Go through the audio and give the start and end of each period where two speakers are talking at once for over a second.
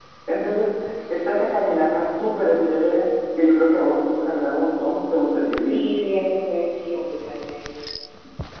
none

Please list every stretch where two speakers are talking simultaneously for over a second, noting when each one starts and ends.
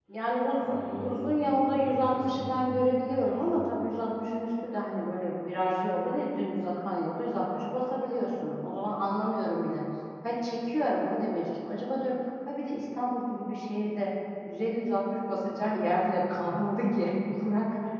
0.6-3.5

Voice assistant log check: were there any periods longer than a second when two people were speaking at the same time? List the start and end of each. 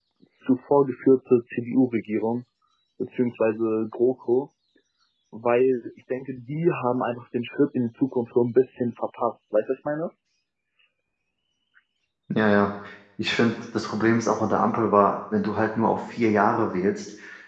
none

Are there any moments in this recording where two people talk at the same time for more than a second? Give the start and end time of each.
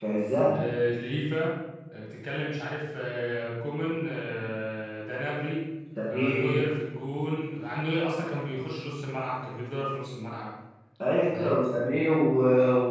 none

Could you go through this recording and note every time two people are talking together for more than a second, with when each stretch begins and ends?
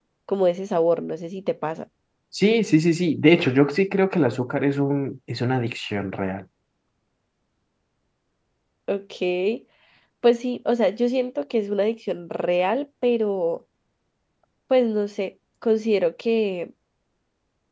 none

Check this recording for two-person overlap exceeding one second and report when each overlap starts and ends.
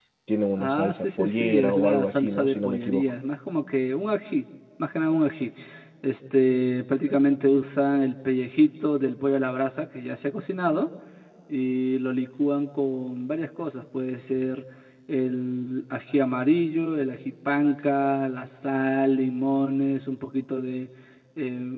0.6-3.0

